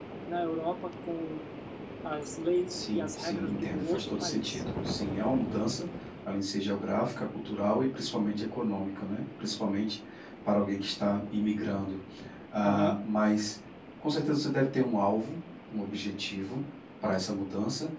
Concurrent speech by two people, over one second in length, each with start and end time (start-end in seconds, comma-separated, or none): 2.7-4.6